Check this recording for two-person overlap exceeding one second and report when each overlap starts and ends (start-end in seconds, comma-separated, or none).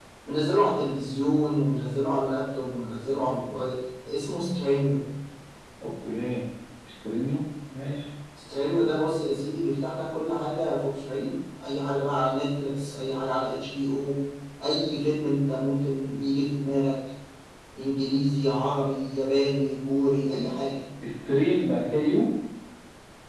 none